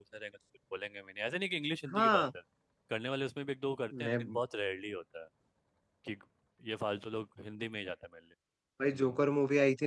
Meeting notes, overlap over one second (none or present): none